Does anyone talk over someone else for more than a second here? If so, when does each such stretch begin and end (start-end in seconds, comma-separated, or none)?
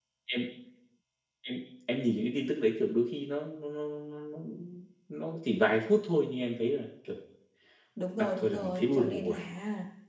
8.2-9.4